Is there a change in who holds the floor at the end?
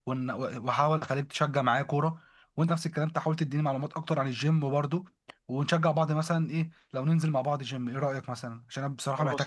Yes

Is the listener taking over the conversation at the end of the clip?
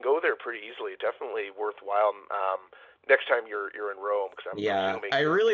Yes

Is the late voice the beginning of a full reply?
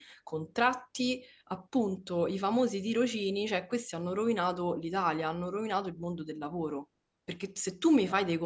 No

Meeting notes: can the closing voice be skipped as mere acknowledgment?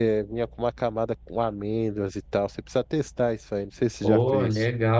No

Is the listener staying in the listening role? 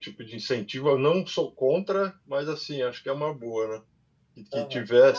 No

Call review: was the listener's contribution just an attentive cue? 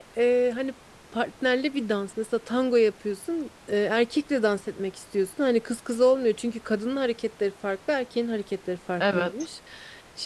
Yes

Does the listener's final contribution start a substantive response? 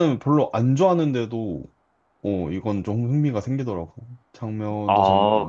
Yes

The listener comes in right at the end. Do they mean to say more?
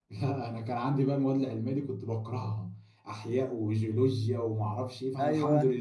No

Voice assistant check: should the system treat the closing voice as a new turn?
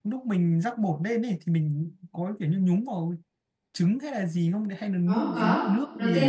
Yes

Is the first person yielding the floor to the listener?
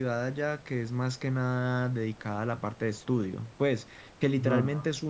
No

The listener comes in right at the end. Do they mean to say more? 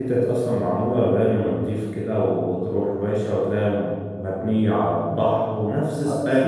Yes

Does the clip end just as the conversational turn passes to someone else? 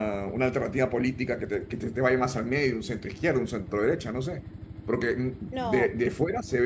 No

